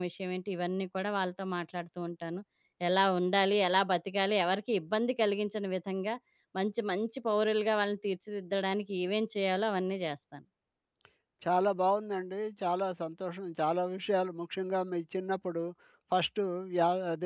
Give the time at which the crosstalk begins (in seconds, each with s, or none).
none